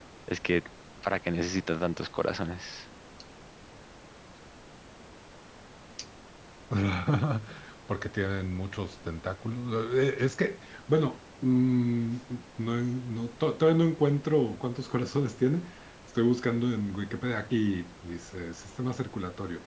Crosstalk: none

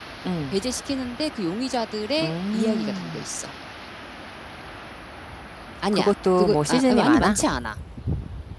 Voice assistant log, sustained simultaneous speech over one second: present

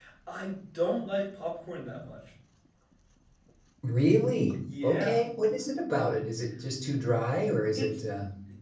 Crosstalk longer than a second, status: none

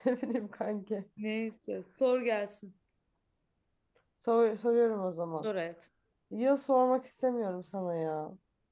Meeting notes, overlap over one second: none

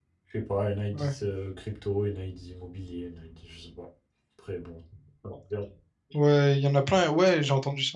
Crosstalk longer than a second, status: none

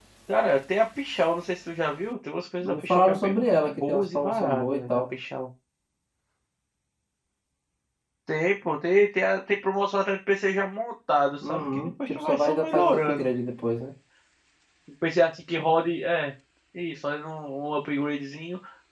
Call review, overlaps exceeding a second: present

